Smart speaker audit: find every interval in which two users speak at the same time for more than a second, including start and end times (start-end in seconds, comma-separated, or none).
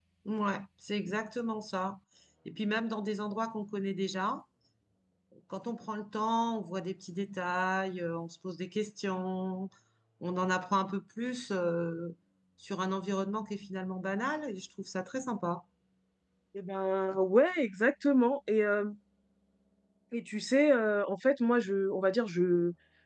none